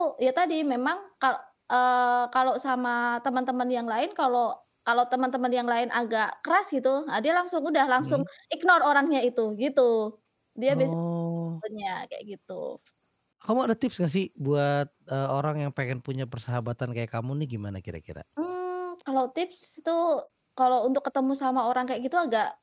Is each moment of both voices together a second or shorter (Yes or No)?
Yes